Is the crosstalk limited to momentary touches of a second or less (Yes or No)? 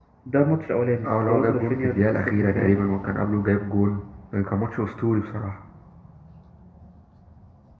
No